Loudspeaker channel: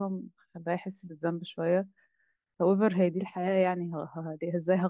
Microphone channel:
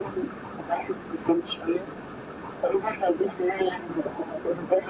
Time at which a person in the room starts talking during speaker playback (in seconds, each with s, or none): none